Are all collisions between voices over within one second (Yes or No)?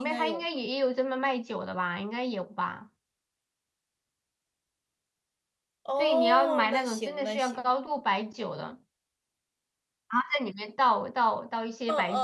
No